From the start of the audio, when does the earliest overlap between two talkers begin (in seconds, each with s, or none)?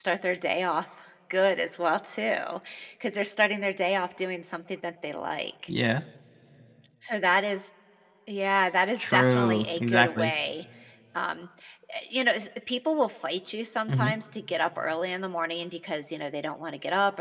9.0 s